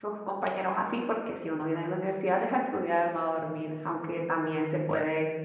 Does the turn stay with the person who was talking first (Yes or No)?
Yes